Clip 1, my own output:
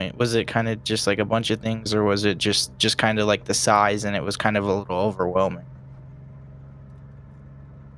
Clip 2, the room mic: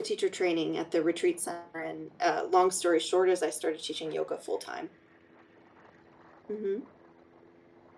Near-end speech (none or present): present